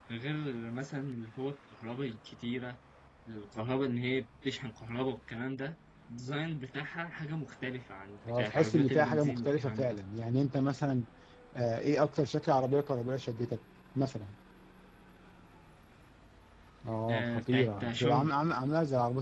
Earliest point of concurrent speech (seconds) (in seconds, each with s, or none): 8.4 s